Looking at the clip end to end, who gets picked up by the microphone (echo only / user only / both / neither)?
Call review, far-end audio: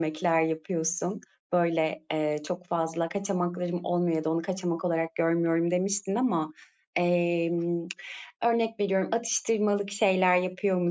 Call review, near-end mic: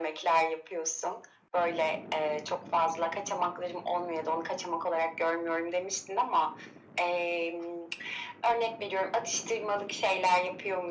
echo only